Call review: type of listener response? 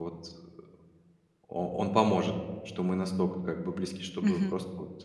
listening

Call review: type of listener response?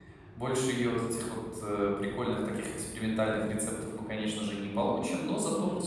listening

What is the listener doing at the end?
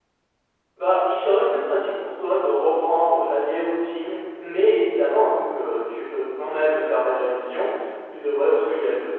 listening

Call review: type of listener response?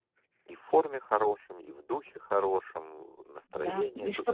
taking over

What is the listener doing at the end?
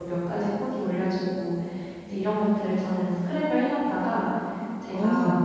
listening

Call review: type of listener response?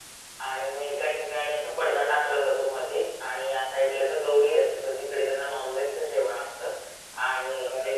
taking over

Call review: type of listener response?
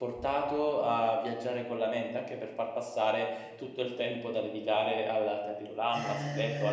taking over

